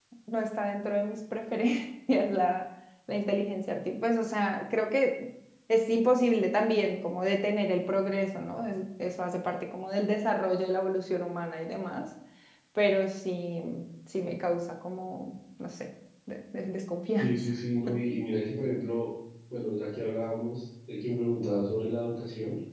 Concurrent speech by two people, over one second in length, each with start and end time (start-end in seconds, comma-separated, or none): none